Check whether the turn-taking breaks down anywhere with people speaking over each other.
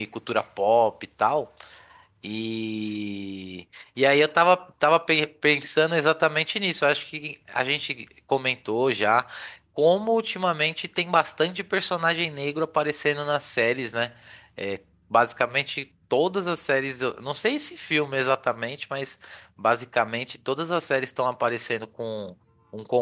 No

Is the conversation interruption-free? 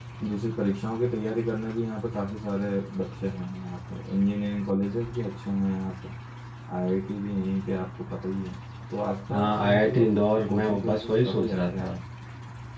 No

